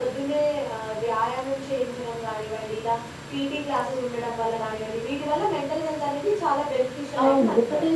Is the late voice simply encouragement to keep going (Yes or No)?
No